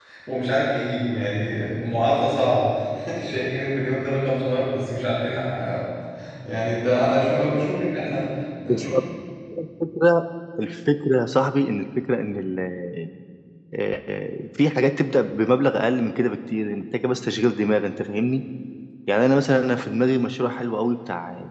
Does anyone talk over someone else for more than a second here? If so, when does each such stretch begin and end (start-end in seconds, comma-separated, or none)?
none